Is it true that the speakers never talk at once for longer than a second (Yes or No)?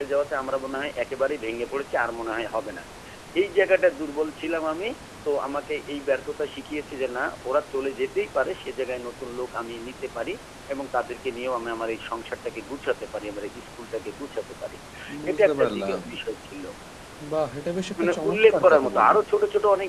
No